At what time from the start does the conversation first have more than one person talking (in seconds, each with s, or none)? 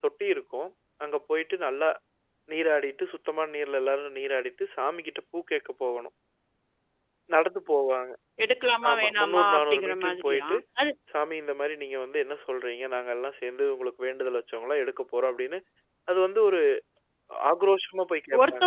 8.9 s